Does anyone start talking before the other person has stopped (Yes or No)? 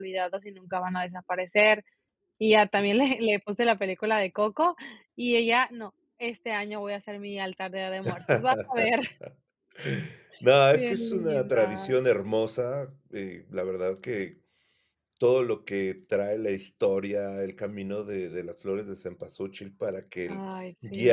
Yes